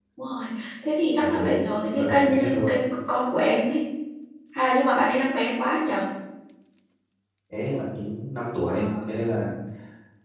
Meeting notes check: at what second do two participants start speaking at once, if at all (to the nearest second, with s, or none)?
1 s